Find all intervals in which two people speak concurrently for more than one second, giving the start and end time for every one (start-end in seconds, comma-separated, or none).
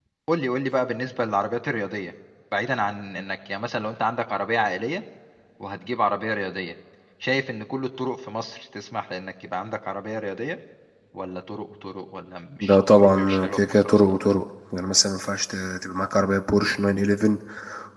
12.6-14.2